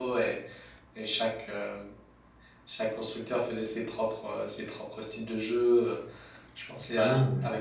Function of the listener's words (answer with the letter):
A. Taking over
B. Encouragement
B